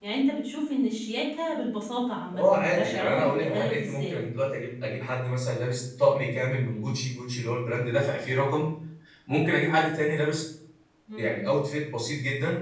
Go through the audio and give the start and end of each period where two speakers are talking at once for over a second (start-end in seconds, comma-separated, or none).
2.3-4.2